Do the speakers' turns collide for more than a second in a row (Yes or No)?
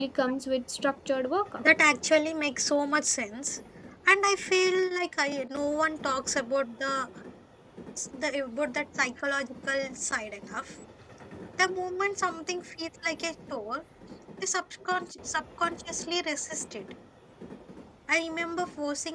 No